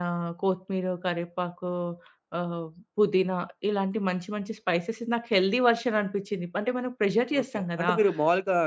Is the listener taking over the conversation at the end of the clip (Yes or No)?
Yes